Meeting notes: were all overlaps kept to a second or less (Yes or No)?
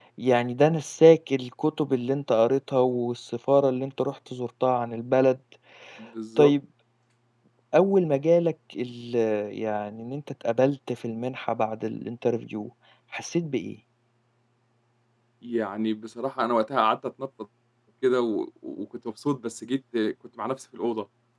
Yes